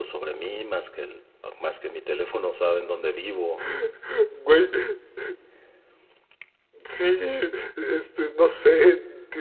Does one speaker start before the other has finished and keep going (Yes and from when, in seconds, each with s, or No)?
No